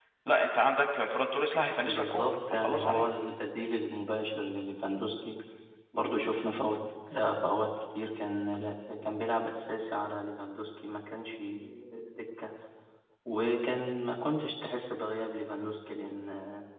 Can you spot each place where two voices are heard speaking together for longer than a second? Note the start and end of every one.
1.8-3.1

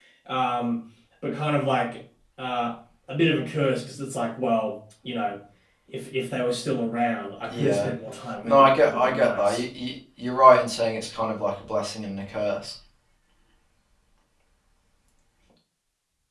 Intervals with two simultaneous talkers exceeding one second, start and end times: 8.4-9.7

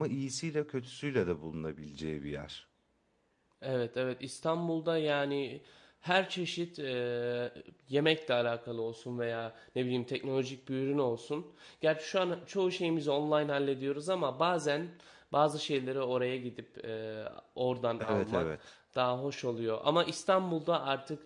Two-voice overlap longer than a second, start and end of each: none

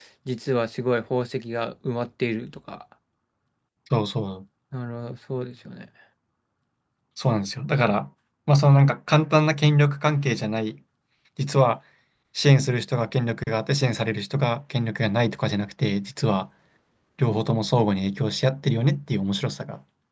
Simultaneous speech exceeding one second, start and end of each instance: none

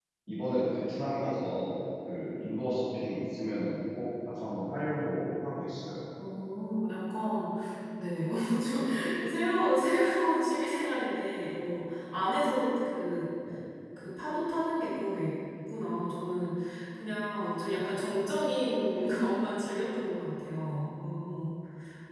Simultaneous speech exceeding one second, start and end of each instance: none

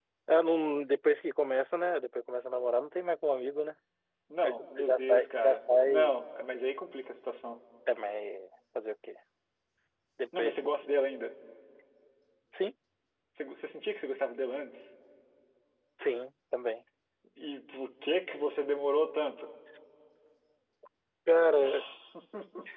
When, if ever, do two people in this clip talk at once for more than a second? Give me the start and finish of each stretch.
4.4-6.1

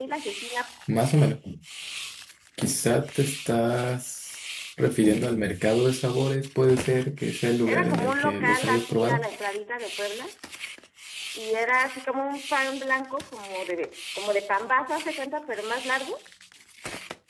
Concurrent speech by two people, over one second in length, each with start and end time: 7.6-9.3

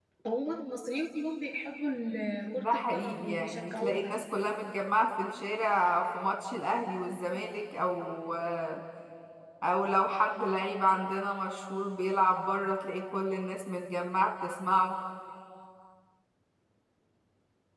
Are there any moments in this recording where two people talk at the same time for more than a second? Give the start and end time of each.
2.6-4.1

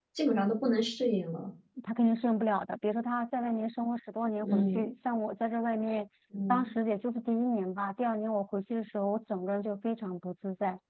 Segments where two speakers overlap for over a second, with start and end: none

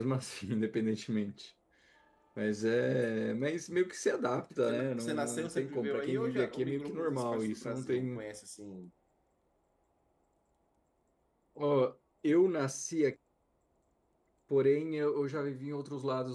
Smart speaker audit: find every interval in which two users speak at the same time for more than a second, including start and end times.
4.6-8.2

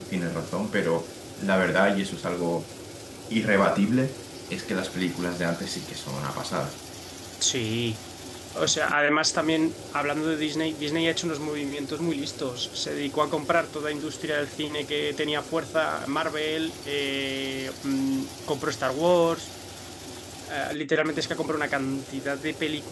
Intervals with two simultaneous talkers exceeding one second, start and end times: none

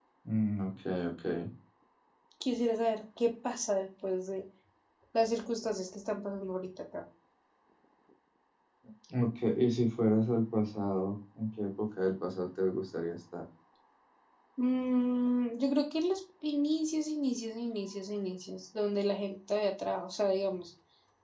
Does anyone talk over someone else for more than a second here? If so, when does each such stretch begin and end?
none

